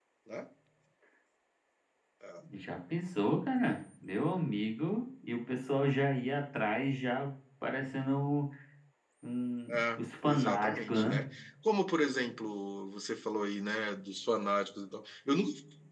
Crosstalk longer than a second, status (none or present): present